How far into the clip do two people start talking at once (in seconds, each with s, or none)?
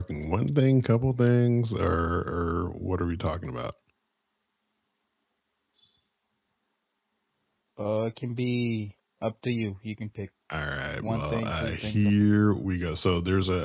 11.0 s